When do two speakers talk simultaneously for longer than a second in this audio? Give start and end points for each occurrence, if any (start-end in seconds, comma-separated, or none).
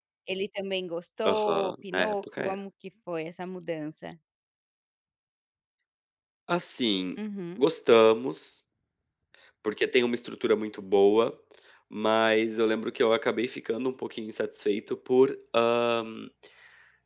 1.2-2.5